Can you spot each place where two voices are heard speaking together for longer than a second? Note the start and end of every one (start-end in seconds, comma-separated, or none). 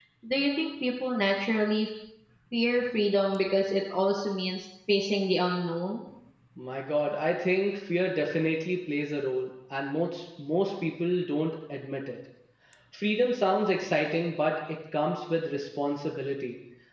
none